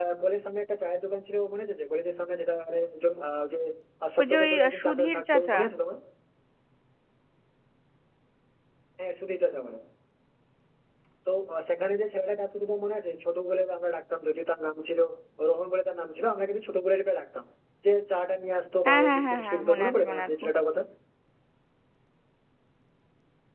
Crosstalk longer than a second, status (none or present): present